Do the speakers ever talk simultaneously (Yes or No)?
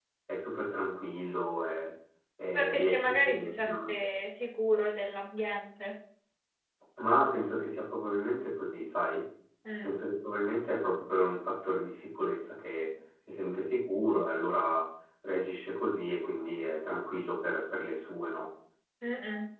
Yes